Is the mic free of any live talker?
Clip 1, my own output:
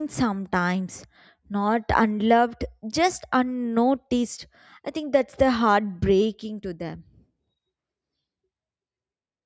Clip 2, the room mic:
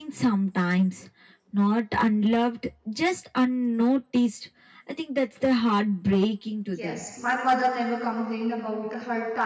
No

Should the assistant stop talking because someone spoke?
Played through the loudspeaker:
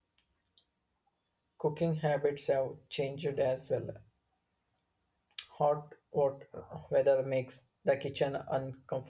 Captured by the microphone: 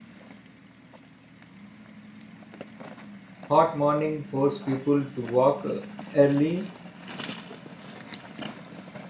Yes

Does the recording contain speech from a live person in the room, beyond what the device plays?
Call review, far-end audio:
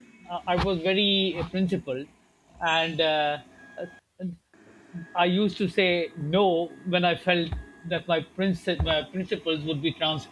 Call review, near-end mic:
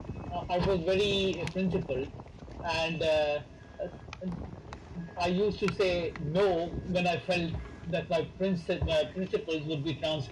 No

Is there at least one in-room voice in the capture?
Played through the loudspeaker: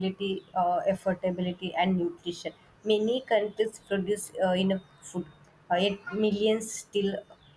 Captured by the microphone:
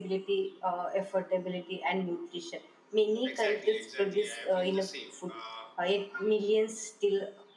Yes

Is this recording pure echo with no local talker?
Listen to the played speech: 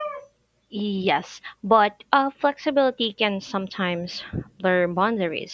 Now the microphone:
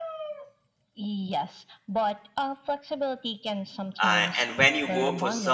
No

